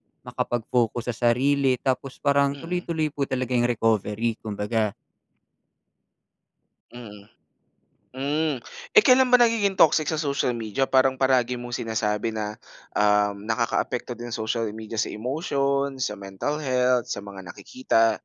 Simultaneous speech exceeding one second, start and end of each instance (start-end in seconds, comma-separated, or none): none